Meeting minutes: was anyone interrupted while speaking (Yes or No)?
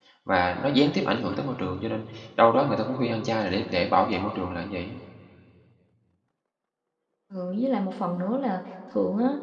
No